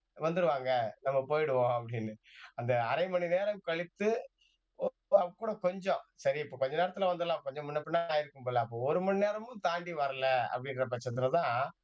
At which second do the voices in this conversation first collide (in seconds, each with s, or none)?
none